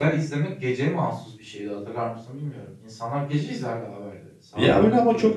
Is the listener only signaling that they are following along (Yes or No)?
No